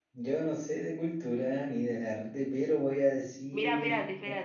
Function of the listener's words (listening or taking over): taking over